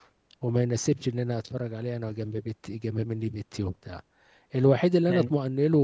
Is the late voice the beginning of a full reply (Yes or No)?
No